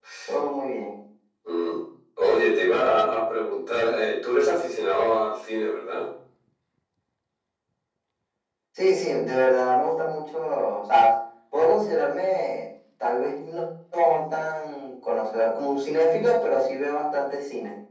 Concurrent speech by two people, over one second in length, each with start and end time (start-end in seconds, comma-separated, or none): none